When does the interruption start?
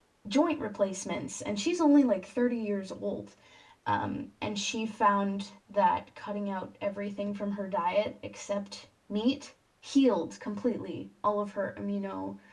none

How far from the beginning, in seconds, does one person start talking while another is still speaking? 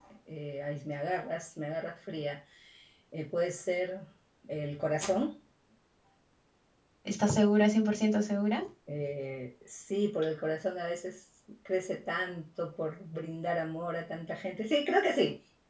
none

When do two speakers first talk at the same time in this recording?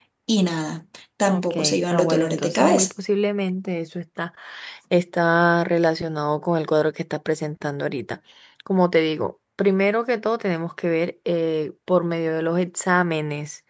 1.3 s

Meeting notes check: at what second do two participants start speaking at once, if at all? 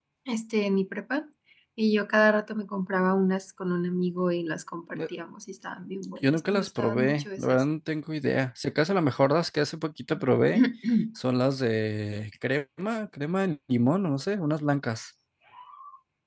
6.0 s

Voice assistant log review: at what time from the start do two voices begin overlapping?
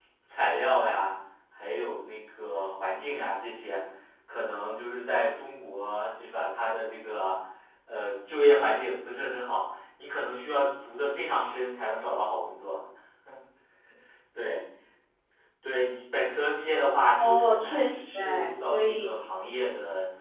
17.2 s

